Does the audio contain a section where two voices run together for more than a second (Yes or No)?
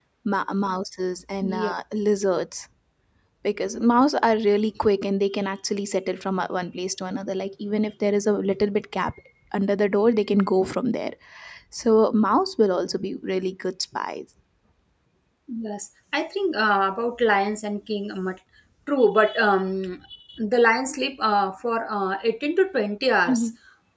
No